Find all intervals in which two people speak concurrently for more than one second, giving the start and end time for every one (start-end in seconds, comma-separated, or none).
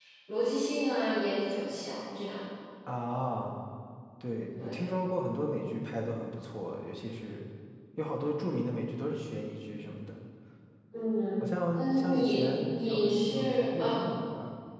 11.4-14.0